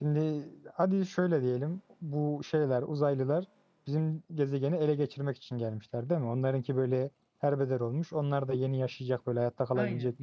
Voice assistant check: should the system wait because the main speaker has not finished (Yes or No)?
No